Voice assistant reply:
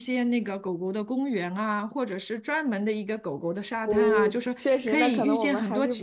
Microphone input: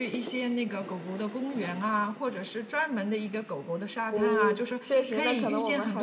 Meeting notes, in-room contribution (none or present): none